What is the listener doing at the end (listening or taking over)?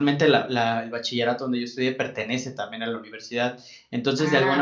listening